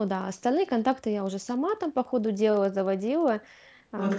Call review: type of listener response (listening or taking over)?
taking over